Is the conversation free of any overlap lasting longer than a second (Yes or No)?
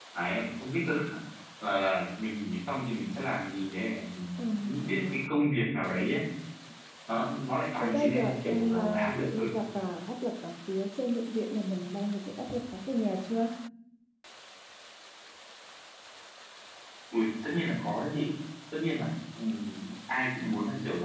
No